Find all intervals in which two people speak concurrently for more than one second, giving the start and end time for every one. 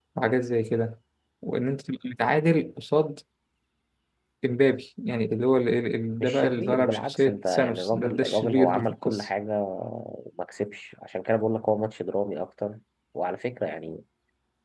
6.2-9.3

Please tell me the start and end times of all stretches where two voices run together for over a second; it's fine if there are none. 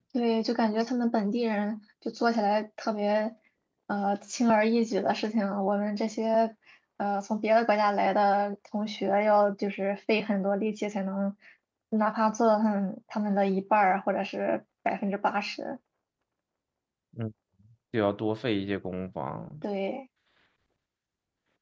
none

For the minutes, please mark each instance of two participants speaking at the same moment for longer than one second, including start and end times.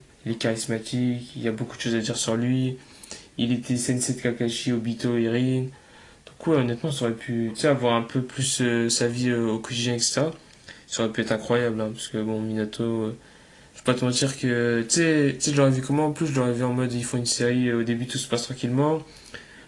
none

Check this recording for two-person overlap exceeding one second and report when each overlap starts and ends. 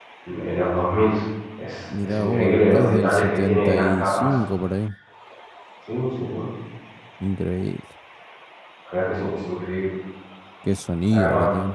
2.0-4.3

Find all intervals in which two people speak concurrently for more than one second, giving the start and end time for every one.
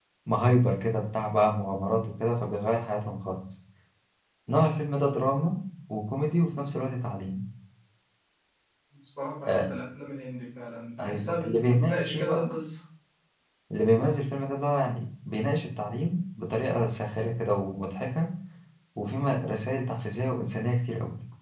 11.0-12.5

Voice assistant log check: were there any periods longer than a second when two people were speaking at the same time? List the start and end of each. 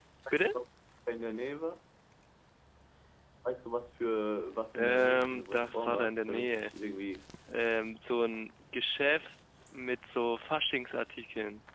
4.8-6.7

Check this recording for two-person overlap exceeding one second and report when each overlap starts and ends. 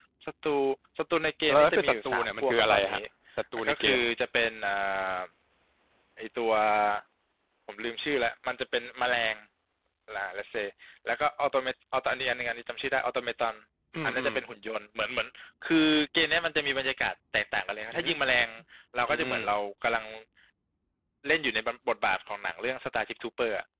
1.5-3.0

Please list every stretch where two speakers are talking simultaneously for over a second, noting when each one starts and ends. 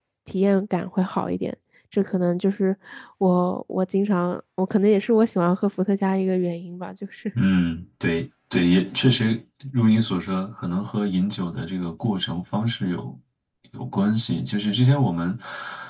none

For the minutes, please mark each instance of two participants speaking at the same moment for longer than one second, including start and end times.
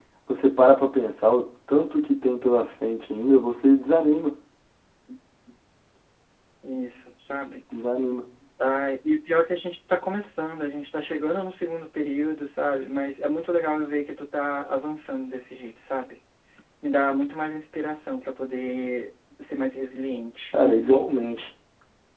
none

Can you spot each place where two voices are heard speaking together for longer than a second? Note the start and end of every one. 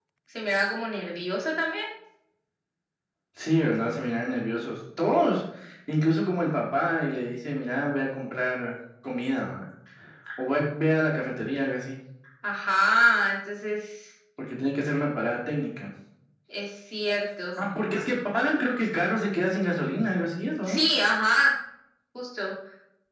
none

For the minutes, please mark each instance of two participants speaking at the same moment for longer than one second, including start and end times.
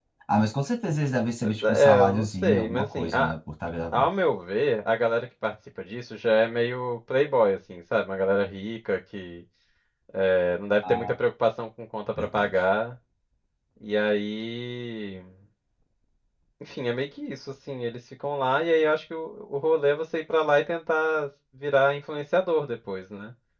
1.4-3.3

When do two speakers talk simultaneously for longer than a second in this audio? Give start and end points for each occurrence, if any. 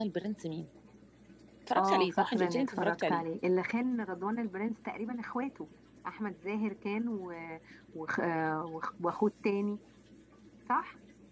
1.8-3.2

